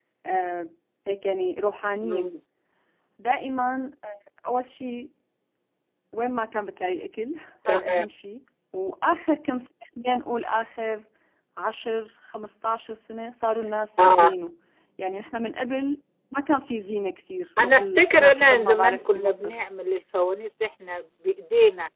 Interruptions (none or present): present